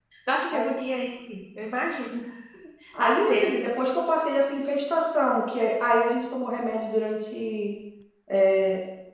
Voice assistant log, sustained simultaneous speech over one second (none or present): none